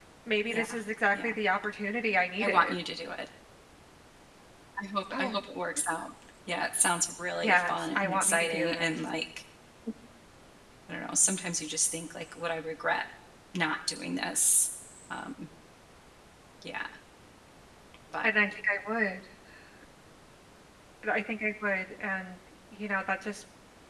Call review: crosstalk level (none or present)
present